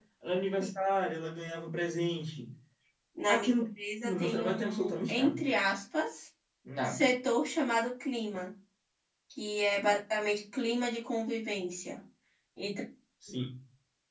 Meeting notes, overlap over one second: present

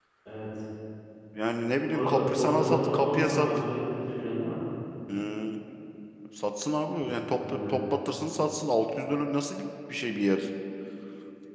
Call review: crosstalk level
present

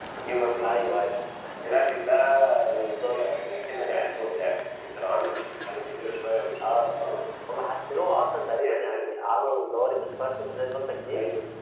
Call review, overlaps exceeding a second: none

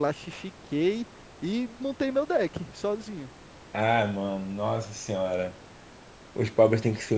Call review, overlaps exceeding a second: none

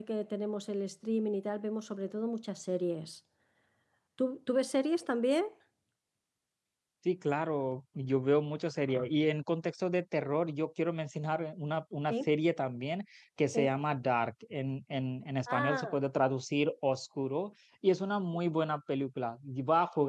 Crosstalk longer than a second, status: none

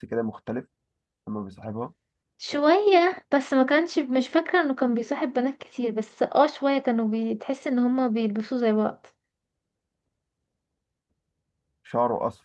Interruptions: none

